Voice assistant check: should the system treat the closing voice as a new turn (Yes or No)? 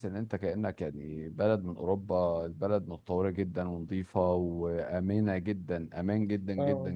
Yes